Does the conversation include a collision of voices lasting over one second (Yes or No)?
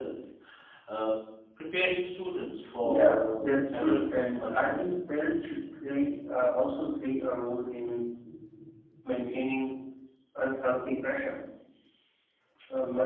Yes